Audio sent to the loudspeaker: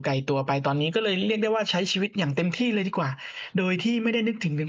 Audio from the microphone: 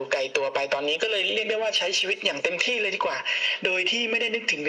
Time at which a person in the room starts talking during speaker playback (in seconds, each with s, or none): none